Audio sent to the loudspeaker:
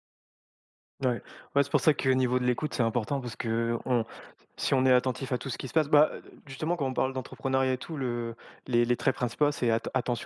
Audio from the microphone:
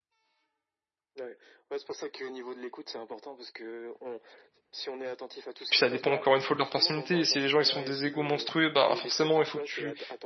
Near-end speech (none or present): present